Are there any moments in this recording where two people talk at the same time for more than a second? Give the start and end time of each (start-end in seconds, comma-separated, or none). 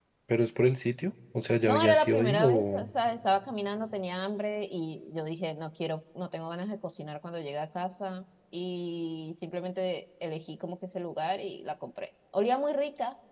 1.6-2.9